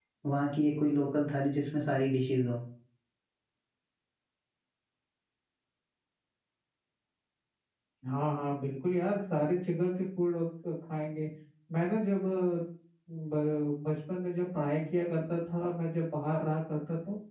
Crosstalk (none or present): none